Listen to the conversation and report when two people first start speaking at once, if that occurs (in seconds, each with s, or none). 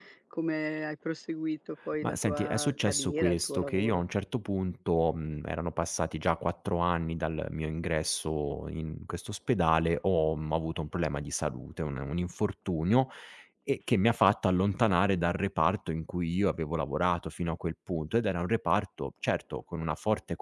2.0 s